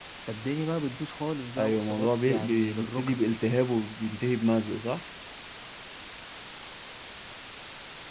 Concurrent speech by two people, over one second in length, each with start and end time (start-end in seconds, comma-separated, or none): 1.6-3.2